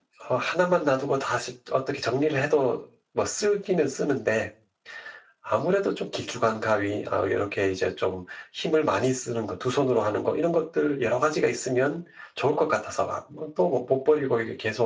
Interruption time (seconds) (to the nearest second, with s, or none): none